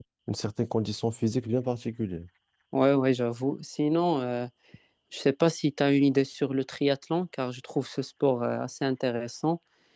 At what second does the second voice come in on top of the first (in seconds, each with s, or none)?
none